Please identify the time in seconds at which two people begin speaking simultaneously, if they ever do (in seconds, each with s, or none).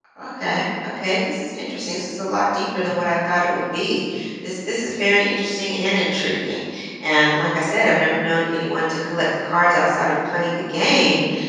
none